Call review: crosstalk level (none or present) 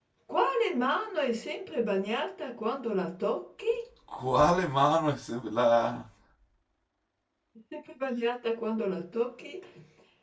none